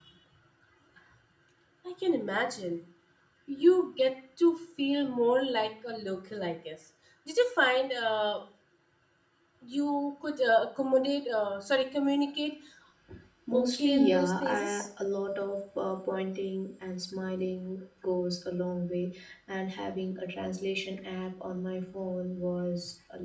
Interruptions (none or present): present